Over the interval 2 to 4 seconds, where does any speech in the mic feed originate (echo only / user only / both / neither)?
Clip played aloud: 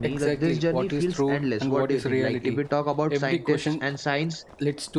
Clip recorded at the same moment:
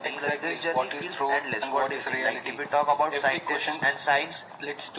echo only